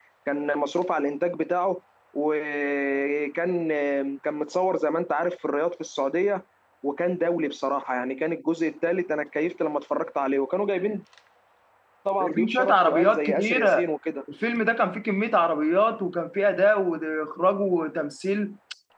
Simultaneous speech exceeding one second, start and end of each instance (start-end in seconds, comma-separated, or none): 12.2-13.9